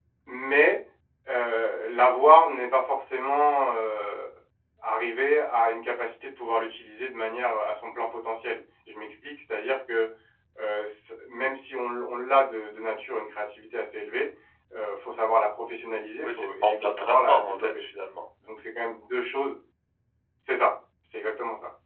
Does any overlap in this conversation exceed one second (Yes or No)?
Yes